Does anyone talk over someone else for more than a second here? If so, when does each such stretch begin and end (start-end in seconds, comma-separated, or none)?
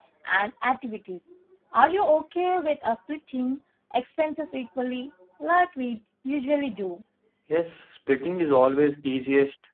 none